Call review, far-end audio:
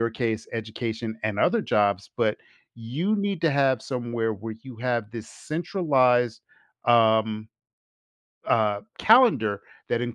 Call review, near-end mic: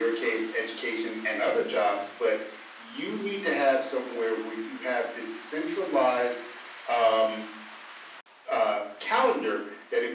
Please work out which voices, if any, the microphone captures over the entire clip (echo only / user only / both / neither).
echo only